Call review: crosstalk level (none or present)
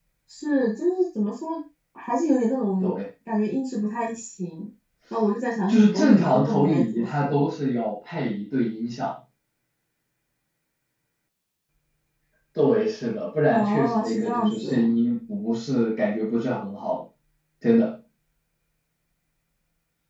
present